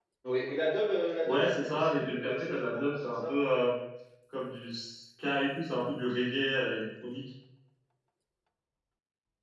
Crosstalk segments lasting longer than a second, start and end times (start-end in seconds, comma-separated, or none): 1.2-3.3